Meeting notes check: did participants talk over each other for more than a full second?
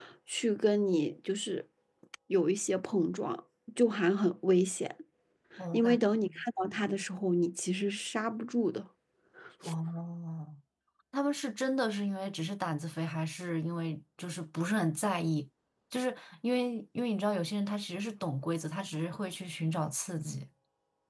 No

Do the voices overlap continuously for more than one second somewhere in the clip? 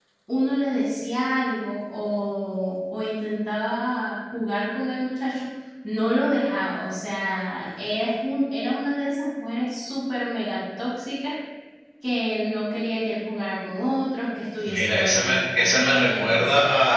Yes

